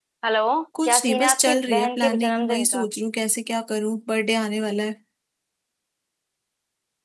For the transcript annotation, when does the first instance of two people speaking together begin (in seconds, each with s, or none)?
0.9 s